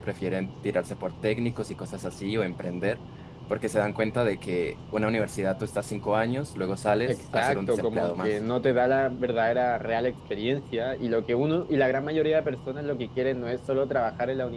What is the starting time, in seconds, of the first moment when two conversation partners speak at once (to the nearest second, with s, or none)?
7 s